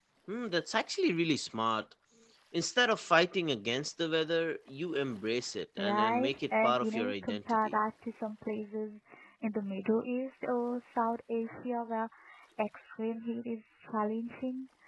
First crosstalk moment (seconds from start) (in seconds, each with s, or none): 5.8 s